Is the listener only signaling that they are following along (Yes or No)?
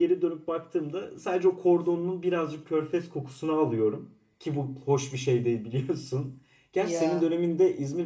Yes